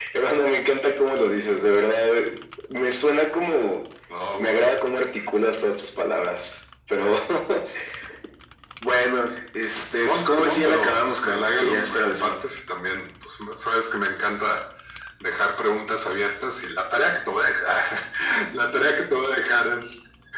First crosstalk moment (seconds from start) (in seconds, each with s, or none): 9.9 s